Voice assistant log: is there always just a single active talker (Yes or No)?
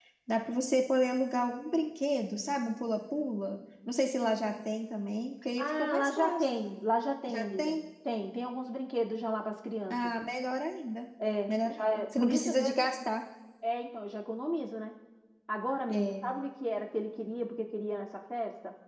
No